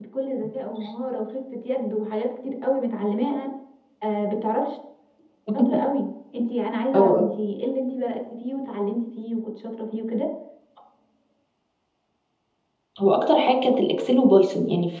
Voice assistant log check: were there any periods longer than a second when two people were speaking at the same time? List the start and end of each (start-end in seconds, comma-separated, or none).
none